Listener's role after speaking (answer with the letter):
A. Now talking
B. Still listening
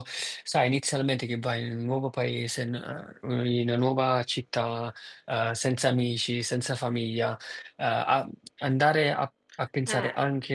B